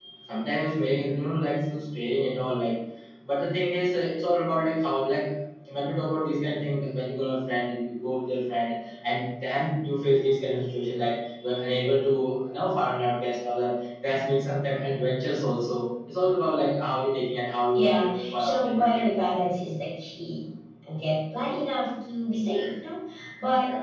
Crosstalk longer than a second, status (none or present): present